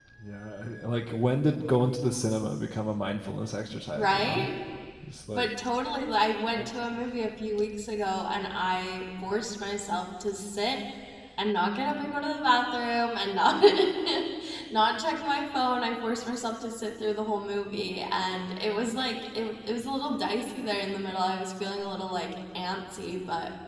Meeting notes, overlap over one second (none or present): none